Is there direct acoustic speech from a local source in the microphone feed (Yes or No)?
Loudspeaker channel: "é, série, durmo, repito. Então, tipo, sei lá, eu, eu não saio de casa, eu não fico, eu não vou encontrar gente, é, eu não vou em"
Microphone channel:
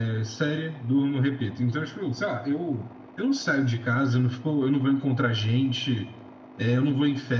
No